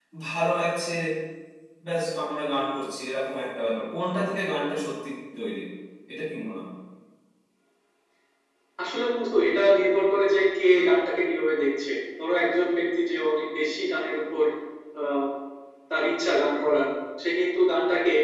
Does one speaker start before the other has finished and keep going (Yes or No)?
No